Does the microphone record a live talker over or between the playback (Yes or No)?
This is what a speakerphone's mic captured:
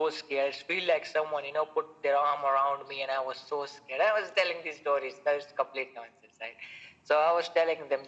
No